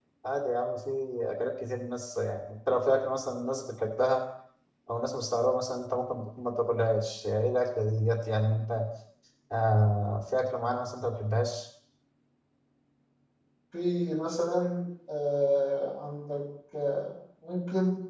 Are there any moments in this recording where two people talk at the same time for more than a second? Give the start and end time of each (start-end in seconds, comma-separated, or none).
none